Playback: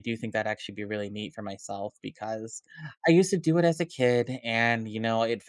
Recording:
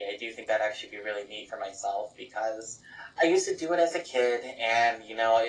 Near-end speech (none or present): none